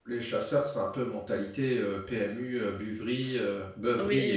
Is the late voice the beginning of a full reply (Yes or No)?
Yes